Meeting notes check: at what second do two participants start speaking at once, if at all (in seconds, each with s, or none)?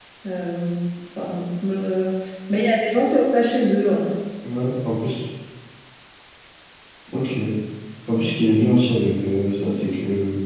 none